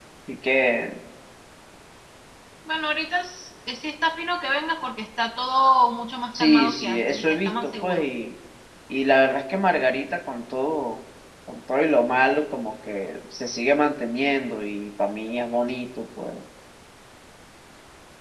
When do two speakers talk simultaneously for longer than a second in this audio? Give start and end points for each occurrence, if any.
6.4-8.0

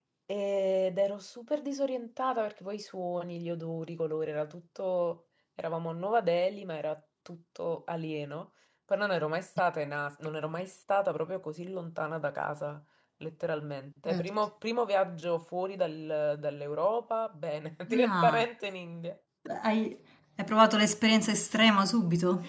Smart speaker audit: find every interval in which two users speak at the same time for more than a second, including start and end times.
none

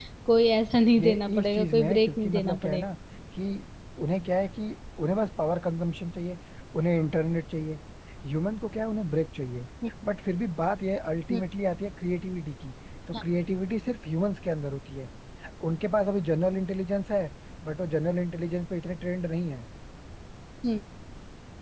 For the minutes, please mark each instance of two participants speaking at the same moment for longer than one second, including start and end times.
0.9-2.8

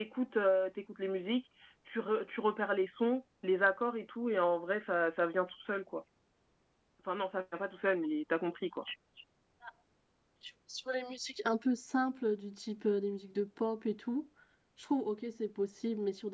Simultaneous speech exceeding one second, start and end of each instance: none

